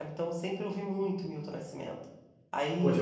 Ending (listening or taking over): taking over